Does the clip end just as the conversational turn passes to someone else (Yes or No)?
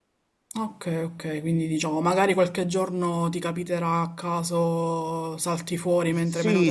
Yes